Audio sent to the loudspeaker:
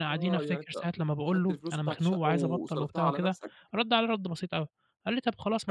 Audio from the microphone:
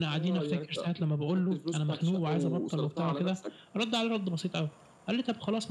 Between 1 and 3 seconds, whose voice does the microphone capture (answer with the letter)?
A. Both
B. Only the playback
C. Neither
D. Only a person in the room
B